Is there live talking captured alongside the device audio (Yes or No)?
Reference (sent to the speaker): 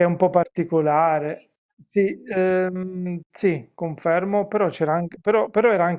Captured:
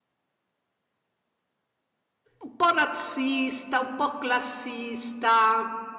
Yes